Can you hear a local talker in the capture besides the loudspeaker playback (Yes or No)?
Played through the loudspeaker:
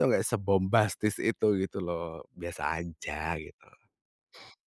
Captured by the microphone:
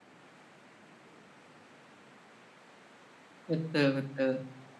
Yes